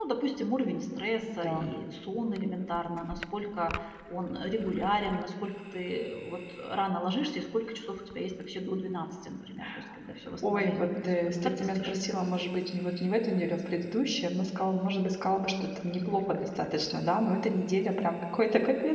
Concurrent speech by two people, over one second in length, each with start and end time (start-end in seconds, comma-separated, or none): 10.5-11.9